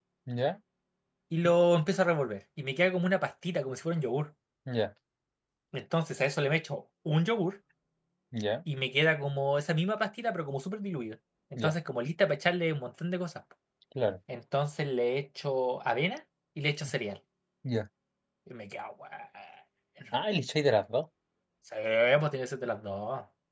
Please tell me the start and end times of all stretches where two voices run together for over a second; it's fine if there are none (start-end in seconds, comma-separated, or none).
none